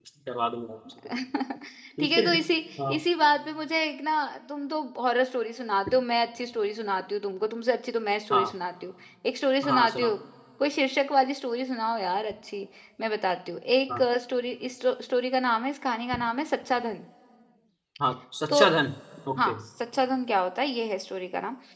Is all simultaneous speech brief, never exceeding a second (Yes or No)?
Yes